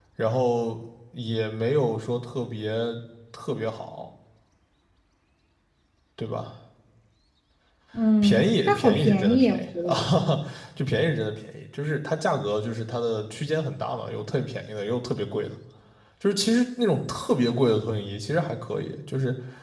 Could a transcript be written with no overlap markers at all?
No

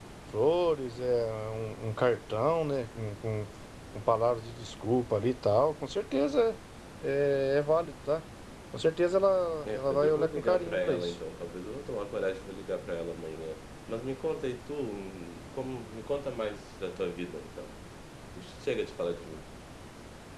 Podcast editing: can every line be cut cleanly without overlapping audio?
No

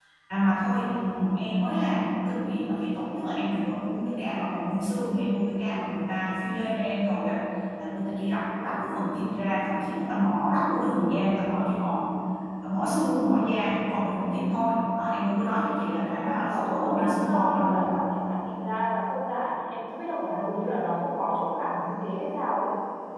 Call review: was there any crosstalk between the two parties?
Yes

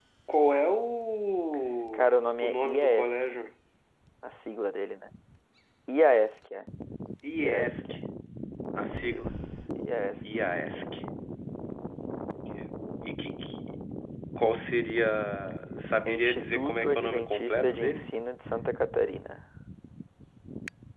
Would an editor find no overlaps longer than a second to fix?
No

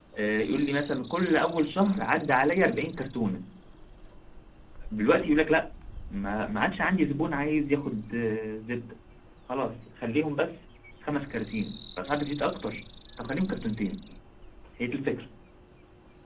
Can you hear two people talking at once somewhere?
No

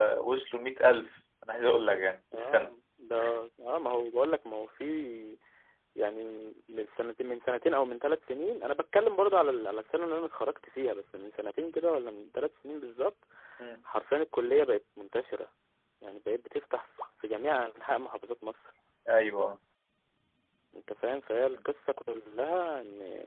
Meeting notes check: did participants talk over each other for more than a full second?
No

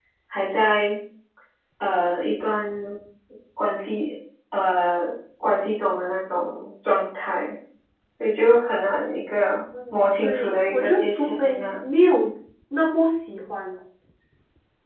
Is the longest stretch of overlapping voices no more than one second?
No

